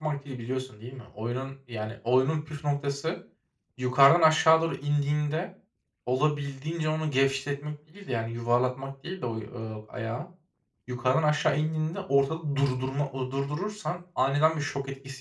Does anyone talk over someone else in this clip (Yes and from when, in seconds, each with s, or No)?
No